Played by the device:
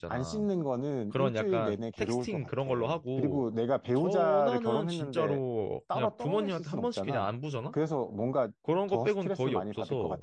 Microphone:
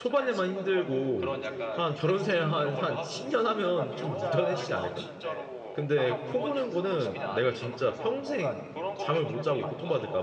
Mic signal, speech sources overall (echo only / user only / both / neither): both